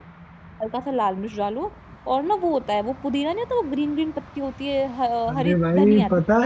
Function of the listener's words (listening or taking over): taking over